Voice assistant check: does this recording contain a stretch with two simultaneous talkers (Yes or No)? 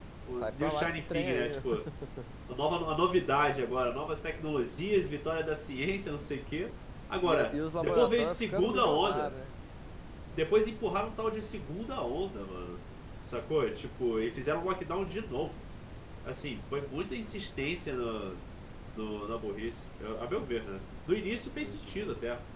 Yes